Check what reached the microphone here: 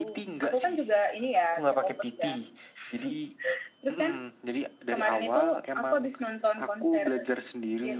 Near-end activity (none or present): none